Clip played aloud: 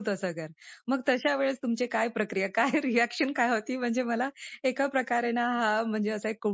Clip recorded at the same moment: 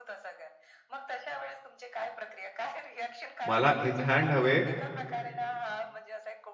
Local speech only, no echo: मला इन हँड हवे.

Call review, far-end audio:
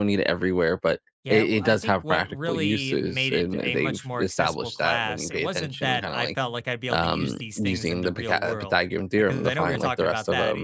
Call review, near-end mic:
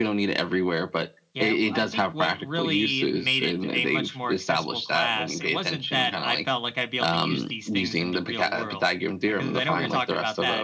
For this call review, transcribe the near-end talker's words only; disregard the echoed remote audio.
none

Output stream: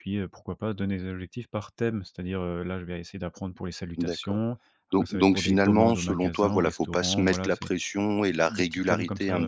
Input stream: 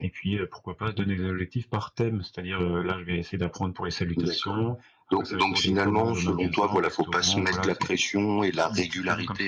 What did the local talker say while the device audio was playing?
none

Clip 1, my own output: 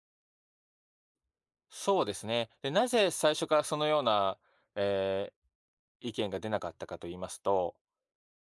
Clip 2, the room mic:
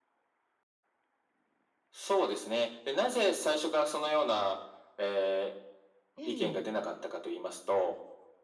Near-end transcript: ええ、

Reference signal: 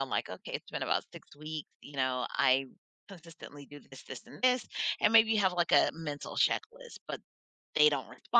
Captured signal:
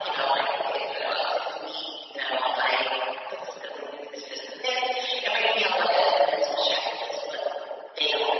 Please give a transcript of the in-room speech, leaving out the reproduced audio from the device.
none

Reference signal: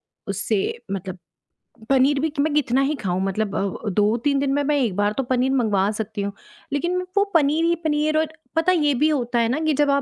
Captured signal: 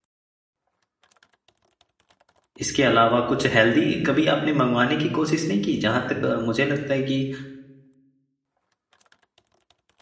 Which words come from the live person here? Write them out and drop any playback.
इसके अलावा कुछ हेल्दी कभी आपने मँगवाने की कोशिश नहीं की? जहाँ तक अ, मुझे लगता है कि

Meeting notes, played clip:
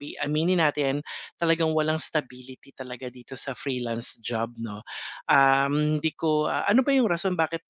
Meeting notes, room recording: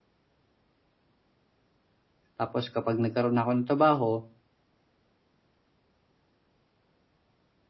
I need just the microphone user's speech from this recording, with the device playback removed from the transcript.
Tapos kapag nagkaroon na ako ng trabaho,

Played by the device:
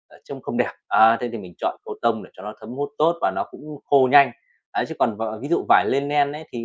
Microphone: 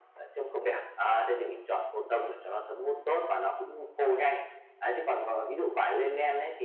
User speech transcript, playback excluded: none

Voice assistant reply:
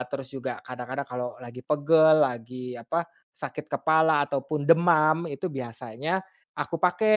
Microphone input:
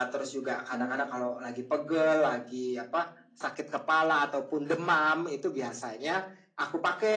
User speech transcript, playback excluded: Mhm,

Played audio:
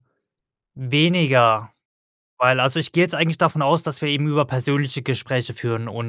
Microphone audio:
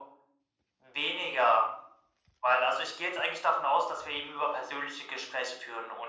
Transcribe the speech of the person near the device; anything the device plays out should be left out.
none

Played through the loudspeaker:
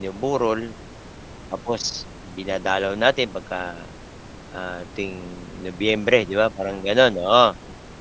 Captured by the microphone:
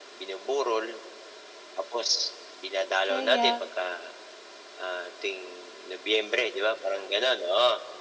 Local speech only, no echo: kaya

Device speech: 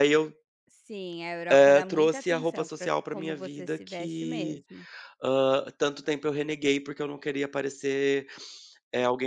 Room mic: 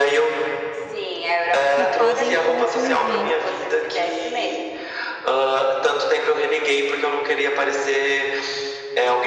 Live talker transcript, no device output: que podem confundir.

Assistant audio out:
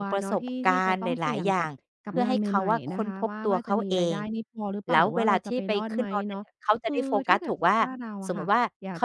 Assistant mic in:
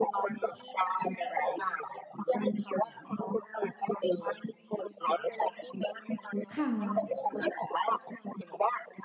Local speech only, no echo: ค่ะ

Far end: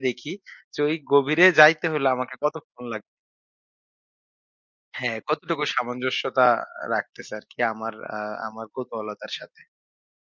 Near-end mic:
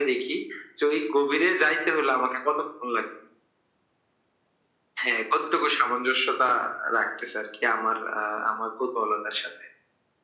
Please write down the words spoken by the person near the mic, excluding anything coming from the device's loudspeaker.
none

